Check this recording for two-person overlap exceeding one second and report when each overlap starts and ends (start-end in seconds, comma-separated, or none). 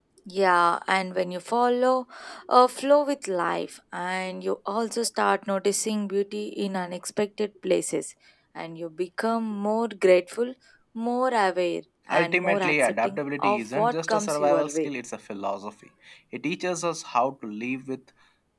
12.1-14.9